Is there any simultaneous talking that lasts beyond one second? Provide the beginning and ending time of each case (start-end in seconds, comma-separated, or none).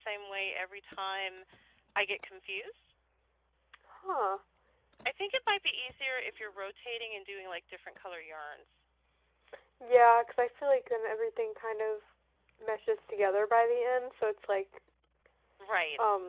none